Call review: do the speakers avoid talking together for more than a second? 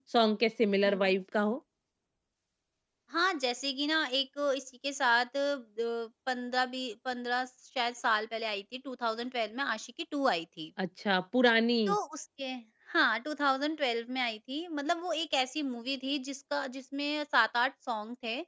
Yes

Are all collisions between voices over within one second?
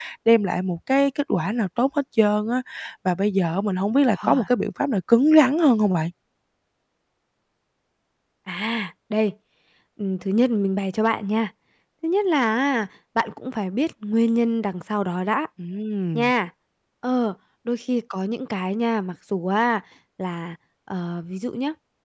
Yes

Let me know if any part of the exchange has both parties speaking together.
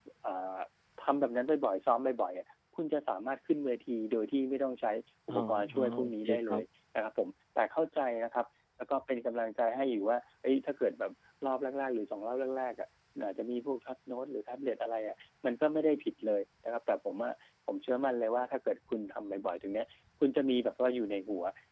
Yes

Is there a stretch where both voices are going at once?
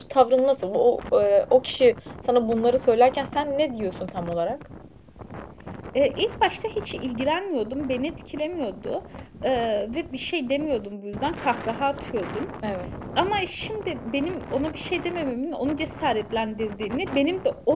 No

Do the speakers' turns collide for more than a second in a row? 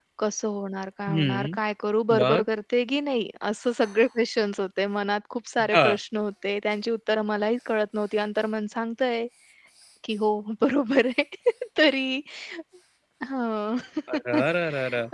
No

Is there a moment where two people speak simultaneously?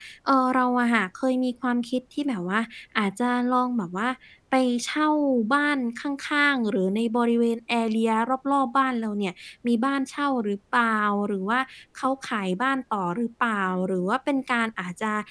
No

